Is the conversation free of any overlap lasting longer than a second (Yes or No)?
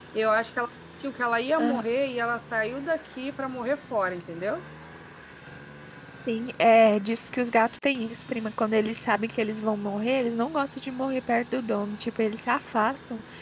Yes